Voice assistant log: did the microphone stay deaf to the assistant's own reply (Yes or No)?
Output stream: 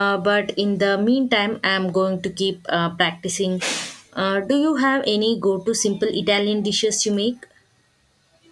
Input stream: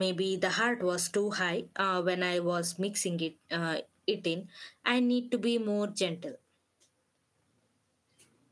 Yes